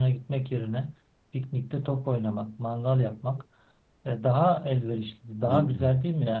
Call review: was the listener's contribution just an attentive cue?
Yes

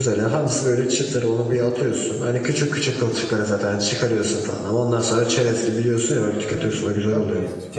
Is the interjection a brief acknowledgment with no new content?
No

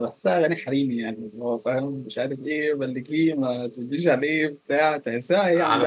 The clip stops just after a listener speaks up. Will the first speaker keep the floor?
No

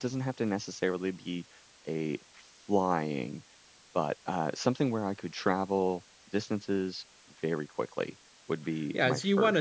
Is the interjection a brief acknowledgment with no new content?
No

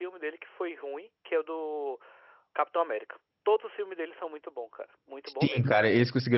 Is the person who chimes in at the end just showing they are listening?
No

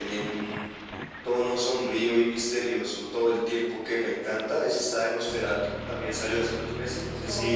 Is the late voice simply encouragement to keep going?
No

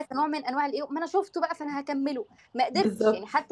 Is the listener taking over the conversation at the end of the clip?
No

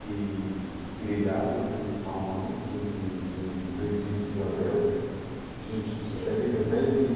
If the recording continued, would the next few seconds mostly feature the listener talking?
No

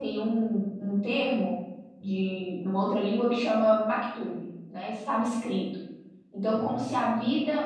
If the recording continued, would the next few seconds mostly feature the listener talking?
No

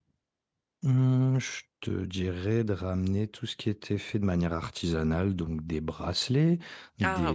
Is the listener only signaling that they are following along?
Yes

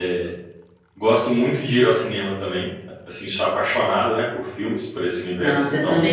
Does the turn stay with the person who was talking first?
No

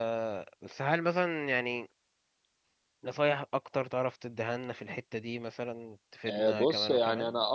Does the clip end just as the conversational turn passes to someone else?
Yes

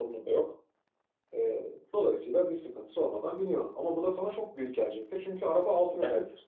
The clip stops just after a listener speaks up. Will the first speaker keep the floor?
No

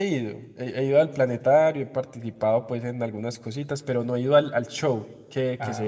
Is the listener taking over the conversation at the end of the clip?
No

